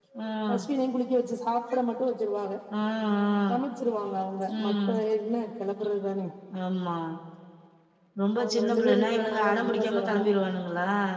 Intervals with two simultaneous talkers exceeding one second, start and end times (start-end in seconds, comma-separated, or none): 8.4-10.2